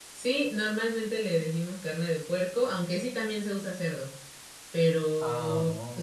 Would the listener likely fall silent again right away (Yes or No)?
Yes